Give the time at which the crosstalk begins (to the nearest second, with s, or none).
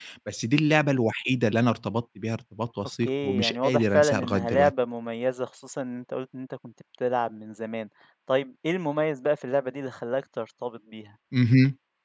3 s